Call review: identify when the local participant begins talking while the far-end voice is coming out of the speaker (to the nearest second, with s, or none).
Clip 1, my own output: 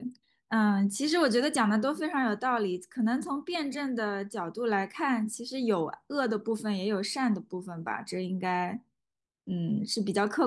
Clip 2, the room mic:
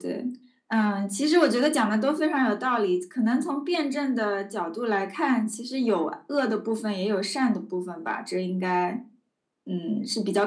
none